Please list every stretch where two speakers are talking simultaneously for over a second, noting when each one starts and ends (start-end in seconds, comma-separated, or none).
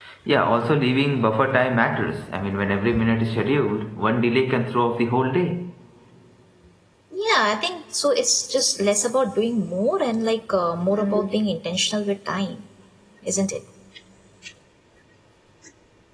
none